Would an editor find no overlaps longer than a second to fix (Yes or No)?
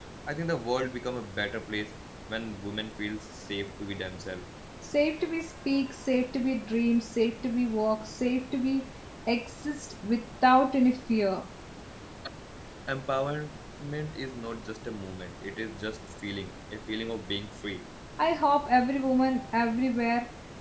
Yes